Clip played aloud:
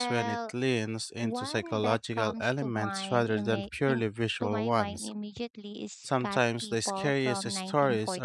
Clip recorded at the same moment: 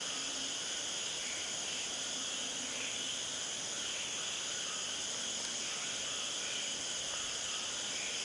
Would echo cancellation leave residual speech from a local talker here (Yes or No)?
No